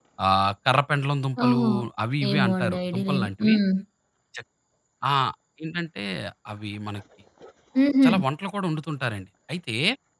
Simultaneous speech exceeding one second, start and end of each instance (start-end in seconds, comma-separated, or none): 2.3-3.6